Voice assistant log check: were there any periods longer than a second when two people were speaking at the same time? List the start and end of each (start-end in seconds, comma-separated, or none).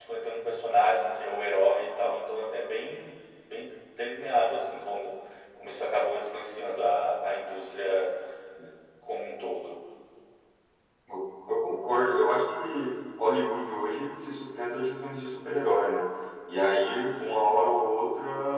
none